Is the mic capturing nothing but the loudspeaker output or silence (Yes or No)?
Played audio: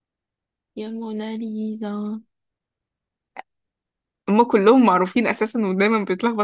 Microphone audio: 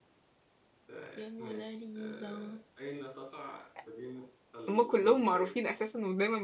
No